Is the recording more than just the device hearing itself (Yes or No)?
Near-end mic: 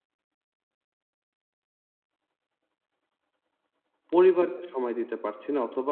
Yes